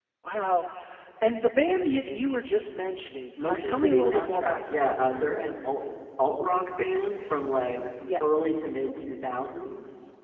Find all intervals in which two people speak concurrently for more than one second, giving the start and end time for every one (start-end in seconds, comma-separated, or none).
3.4-5.0